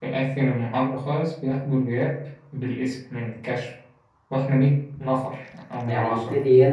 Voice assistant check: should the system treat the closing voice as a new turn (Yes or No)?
Yes